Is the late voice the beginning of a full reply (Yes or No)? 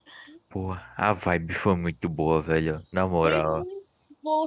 Yes